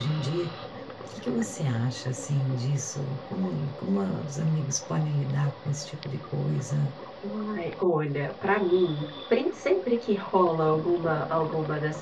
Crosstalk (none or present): none